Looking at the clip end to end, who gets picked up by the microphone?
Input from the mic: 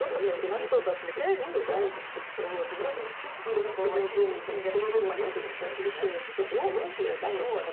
echo only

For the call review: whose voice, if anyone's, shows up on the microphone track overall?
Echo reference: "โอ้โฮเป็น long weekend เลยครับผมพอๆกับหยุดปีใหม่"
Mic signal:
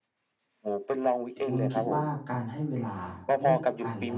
both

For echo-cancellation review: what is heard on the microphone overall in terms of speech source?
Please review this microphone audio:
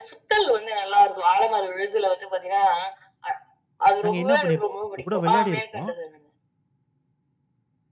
both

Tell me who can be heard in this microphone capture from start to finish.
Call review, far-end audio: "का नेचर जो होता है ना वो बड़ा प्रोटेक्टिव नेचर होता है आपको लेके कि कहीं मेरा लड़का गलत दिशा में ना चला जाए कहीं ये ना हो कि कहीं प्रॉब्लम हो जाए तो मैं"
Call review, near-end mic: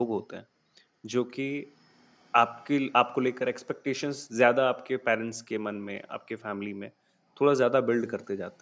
user only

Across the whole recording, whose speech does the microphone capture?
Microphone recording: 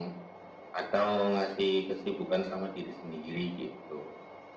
echo only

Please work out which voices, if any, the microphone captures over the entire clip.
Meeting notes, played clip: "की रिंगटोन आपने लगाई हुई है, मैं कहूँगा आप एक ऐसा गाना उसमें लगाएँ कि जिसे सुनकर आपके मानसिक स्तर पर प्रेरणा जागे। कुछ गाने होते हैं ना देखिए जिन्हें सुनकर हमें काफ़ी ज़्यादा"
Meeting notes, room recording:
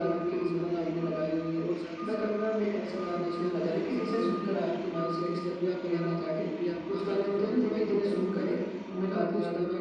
both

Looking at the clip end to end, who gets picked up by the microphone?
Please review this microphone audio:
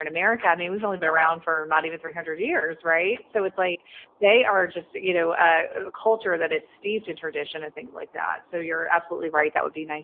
user only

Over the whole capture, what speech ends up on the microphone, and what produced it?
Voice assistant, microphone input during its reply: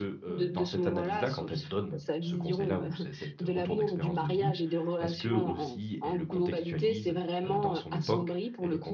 both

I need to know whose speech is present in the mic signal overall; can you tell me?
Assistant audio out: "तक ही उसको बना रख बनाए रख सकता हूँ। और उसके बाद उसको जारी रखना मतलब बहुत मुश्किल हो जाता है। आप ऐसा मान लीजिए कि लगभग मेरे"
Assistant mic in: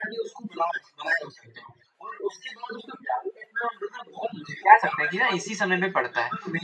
both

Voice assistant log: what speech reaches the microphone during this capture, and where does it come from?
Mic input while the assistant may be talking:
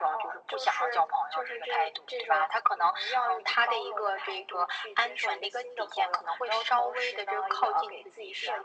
echo only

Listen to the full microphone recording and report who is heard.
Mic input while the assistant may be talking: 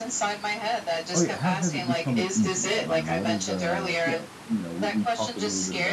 both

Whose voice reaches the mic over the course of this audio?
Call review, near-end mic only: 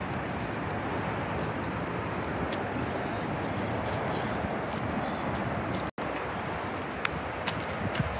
neither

